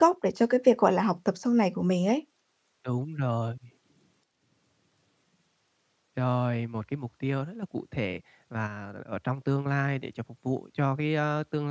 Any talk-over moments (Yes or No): No